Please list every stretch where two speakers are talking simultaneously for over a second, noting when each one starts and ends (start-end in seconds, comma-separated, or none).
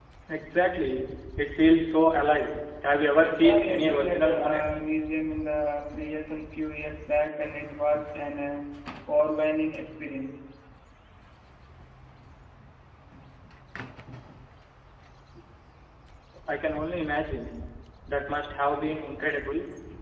3.2-4.8